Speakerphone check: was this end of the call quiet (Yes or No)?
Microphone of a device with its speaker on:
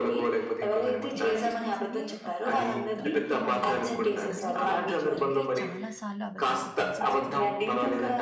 No